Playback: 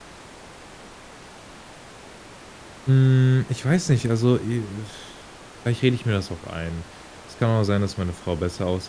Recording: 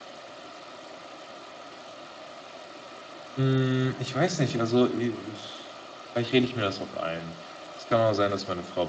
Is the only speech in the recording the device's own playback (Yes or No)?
Yes